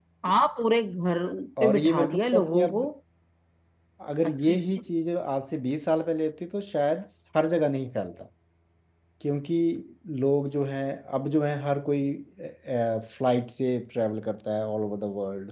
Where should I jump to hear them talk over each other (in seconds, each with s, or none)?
1.6 s